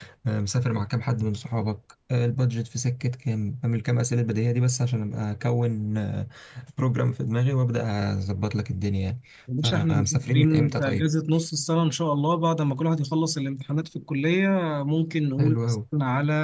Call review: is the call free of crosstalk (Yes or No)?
No